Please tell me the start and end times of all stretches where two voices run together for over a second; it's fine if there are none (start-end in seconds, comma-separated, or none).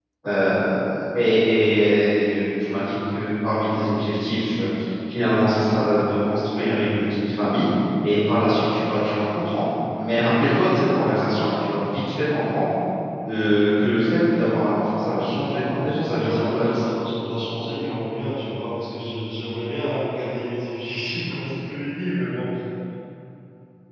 15.5-16.8